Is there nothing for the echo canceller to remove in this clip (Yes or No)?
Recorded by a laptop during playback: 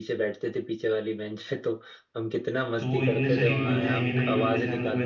No